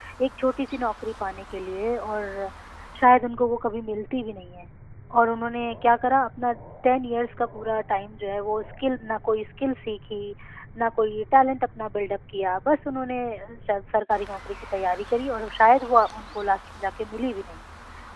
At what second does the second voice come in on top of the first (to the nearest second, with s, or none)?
none